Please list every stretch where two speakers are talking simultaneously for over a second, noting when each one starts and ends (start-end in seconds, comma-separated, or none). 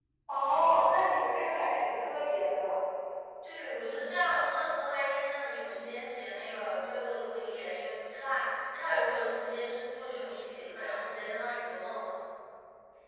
none